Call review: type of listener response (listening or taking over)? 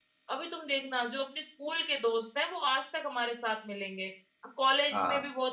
listening